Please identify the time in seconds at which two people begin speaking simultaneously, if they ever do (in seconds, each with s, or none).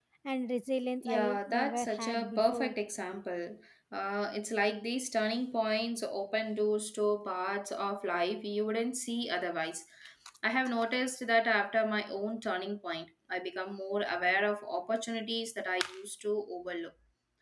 1.0 s